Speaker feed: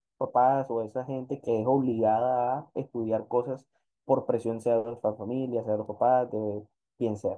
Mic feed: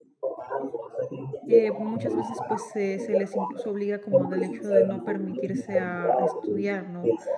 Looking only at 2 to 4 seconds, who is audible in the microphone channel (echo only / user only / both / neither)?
both